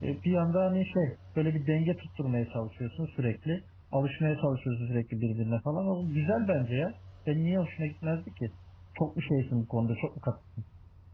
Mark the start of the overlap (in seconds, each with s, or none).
none